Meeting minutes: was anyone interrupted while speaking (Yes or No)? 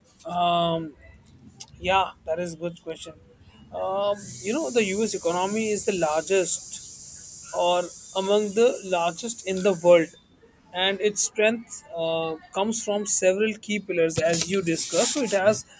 No